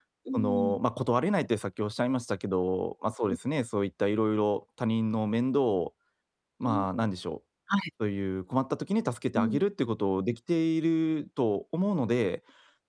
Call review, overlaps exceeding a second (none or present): none